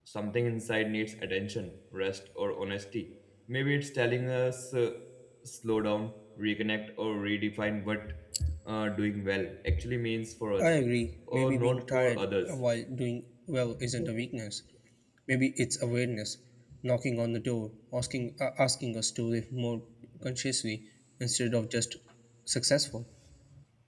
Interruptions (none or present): present